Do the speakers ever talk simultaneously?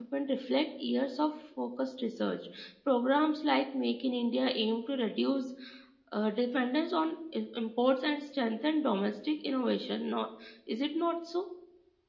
No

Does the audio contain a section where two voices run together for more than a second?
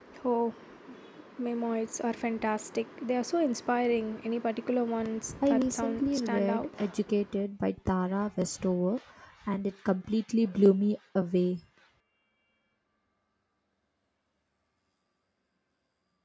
Yes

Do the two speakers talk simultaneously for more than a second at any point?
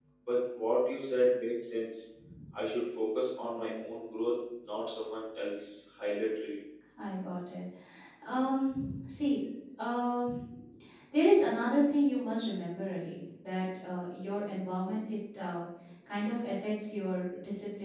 No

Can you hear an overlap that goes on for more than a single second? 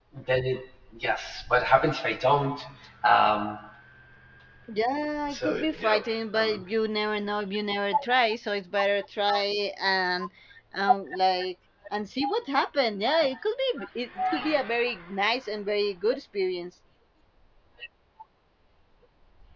Yes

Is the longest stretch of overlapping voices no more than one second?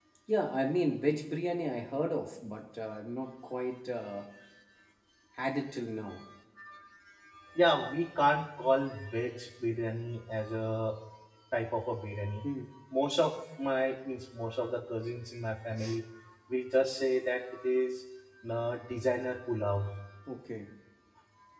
Yes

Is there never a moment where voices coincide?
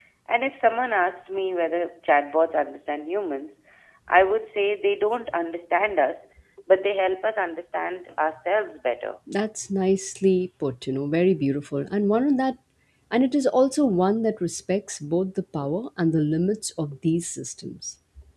Yes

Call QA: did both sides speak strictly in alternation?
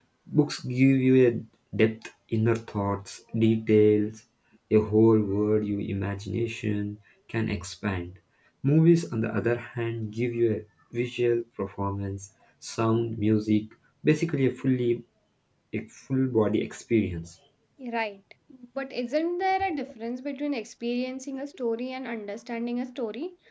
Yes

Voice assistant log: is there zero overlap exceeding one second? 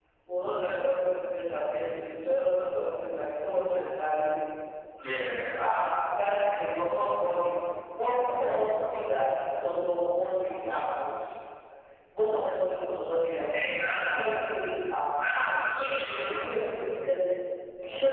Yes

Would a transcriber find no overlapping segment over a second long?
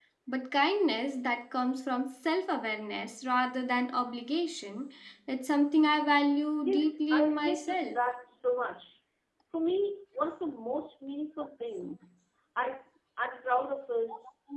No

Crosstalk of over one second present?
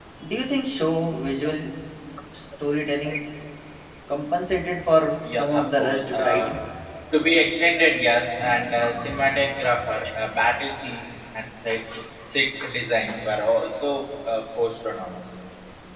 Yes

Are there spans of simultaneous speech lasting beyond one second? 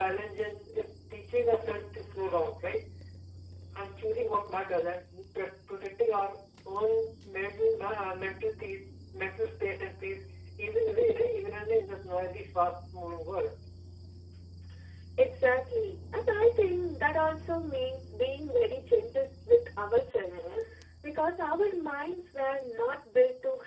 No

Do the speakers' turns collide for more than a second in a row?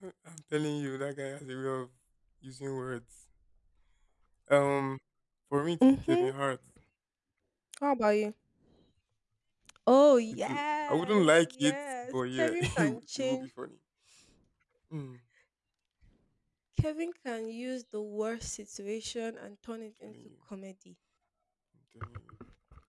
Yes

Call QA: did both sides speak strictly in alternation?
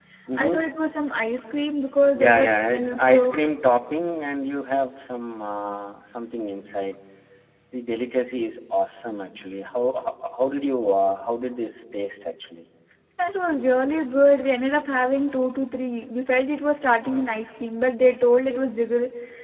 No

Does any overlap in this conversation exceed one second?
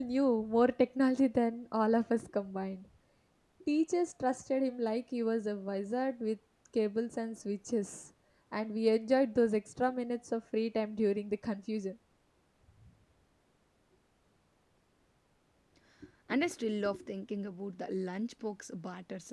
No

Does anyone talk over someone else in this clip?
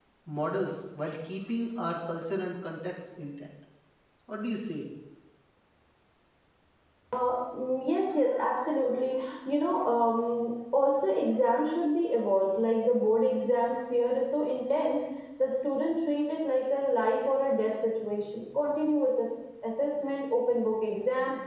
No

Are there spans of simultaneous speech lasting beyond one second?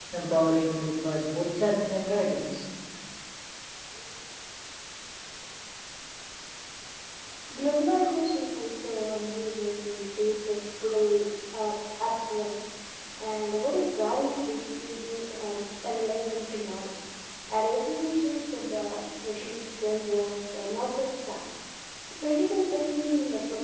No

